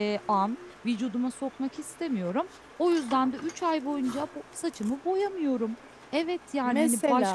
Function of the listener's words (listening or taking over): listening